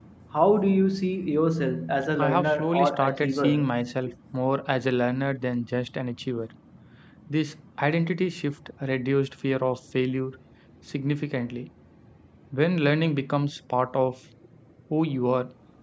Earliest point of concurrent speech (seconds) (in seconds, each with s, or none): 2.2 s